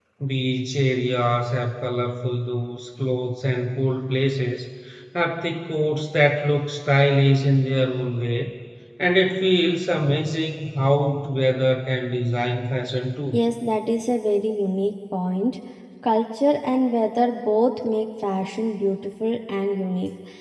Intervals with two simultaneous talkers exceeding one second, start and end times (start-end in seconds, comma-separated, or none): none